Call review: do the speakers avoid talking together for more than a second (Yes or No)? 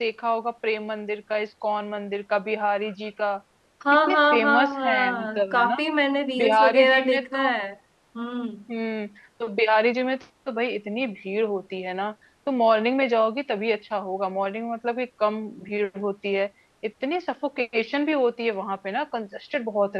No